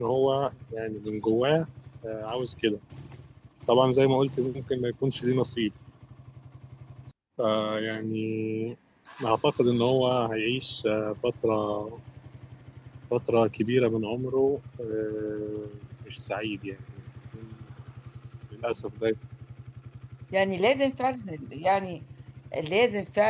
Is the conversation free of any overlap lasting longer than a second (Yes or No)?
Yes